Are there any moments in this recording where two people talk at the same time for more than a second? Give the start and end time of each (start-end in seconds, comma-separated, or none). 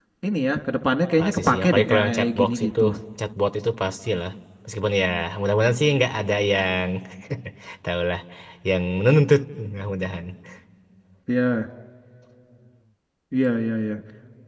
1.2-2.8